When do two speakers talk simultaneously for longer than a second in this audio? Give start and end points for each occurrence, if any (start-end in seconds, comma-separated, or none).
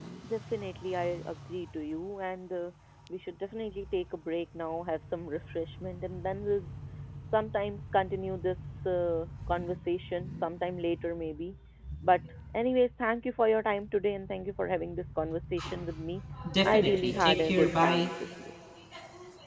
16.6-18.0